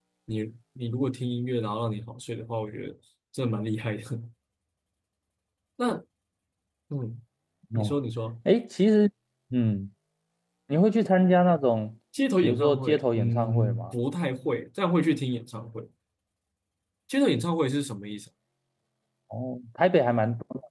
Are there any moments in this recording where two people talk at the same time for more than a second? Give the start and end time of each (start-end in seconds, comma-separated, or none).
12.4-13.9